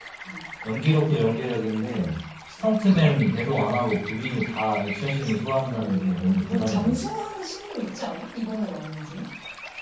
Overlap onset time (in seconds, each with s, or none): 5.6 s